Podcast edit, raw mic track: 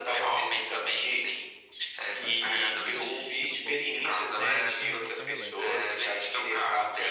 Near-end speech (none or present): present